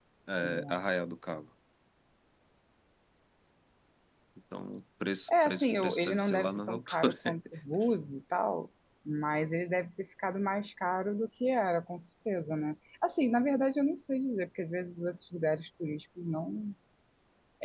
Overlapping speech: Yes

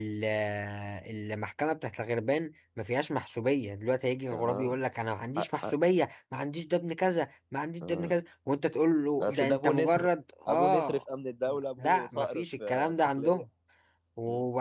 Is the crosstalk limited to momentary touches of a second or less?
No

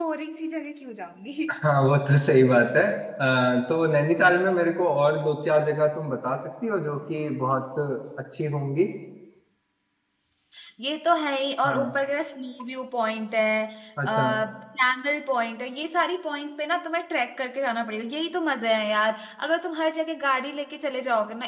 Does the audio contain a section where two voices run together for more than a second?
No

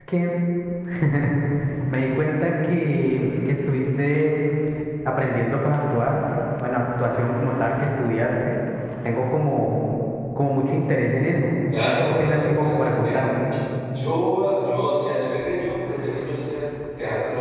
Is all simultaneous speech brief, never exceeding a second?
No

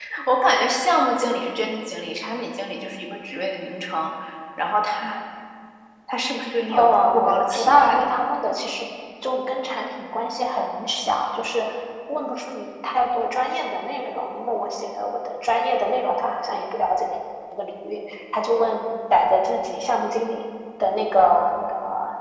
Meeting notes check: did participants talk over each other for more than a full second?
Yes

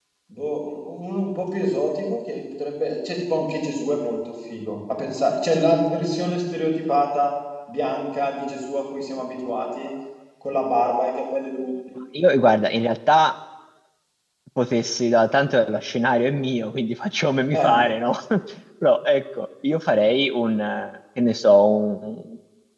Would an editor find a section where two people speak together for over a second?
No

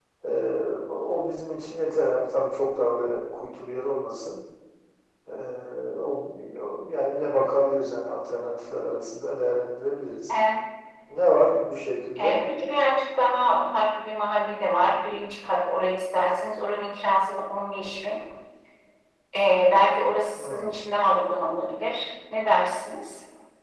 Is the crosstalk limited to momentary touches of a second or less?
Yes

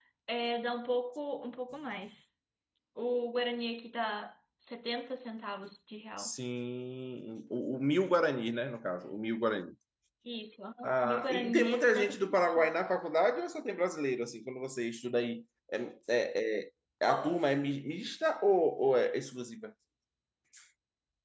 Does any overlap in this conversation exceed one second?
Yes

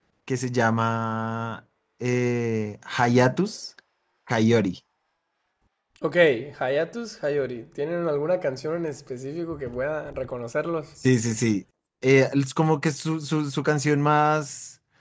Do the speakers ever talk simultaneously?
No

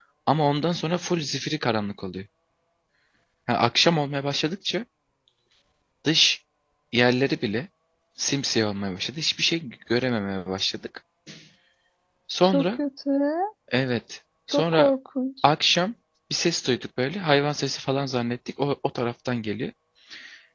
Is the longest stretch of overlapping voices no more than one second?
Yes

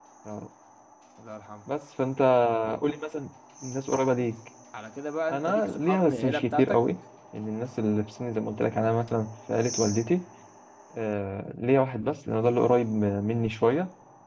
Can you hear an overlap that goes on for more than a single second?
Yes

